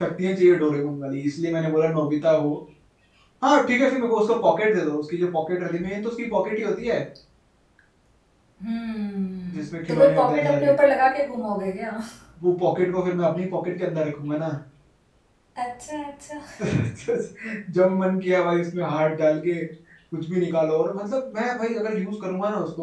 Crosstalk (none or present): present